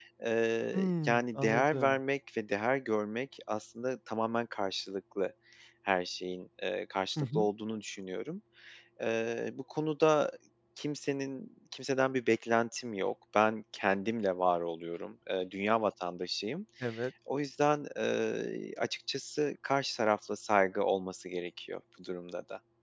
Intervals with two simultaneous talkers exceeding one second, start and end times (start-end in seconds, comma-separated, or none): 0.7-2.0